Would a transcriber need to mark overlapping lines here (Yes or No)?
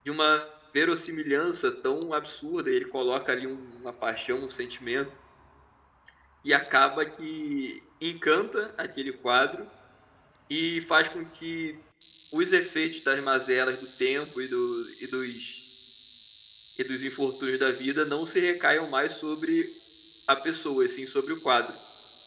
No